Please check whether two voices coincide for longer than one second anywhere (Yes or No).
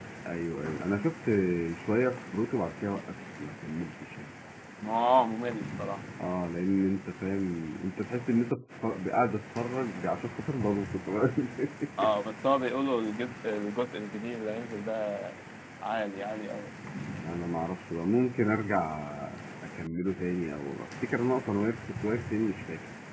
No